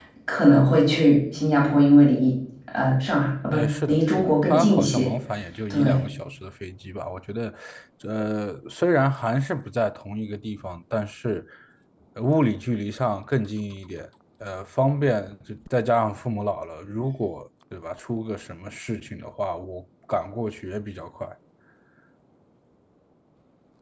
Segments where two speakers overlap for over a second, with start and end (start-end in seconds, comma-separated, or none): 3.5-5.1